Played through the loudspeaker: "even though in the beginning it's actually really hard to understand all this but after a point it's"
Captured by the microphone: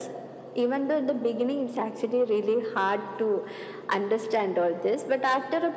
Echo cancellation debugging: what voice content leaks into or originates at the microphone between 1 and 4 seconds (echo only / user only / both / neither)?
echo only